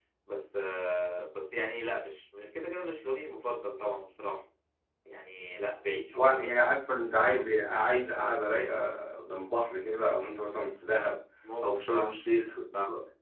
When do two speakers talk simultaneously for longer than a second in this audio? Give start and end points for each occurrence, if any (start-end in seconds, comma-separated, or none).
none